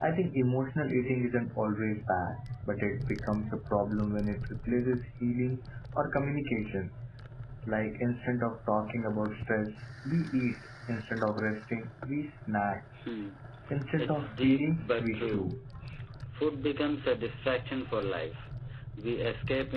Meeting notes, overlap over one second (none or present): present